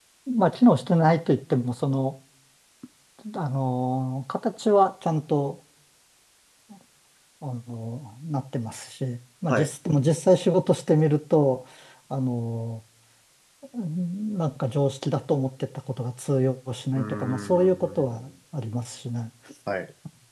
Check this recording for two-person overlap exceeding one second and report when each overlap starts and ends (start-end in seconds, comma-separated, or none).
16.9-18.2